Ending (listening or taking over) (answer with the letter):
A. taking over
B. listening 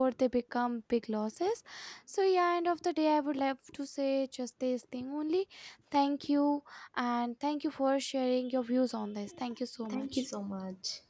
A